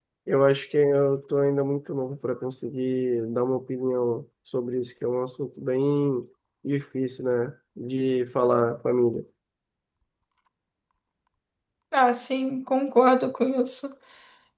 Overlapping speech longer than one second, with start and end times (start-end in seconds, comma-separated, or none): none